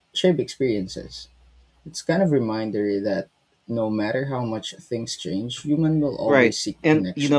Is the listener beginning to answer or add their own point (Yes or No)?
Yes